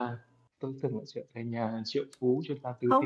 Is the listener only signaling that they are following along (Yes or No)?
No